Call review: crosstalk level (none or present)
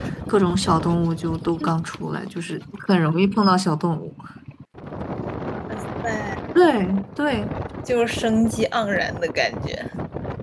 none